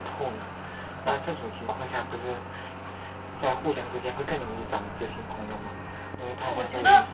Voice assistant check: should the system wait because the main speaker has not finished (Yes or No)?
No